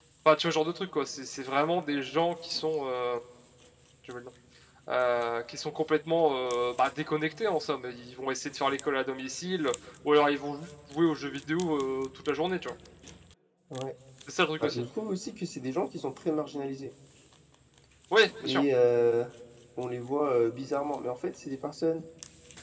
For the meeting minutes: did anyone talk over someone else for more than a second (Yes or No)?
No